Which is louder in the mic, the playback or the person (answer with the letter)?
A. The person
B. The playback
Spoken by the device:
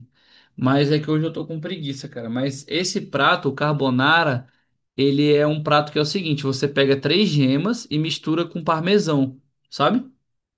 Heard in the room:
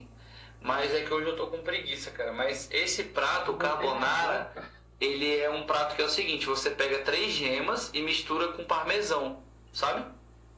B